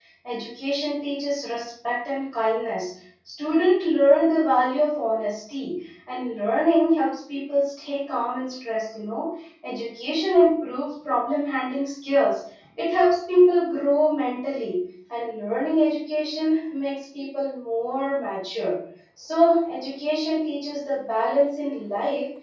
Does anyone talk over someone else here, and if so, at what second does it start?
none

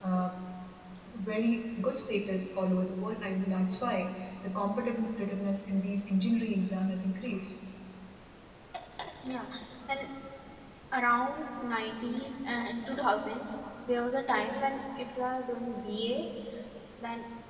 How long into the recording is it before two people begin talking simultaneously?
none

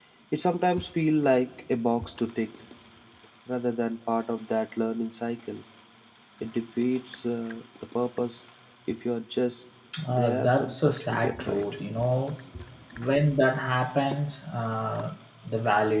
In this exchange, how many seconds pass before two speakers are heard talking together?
10.1 s

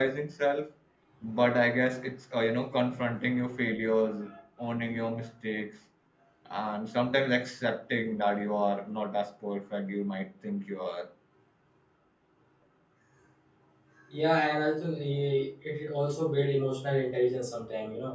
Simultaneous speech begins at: none

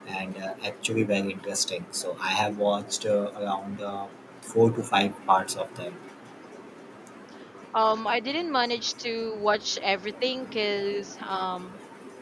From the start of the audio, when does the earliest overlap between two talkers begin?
none

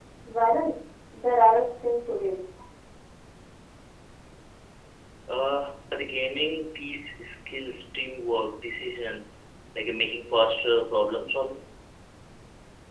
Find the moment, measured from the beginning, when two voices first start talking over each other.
none

